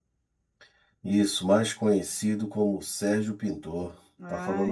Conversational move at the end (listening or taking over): taking over